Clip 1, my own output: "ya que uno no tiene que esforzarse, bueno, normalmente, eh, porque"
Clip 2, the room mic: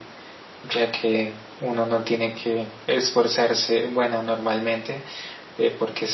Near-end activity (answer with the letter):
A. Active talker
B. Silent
B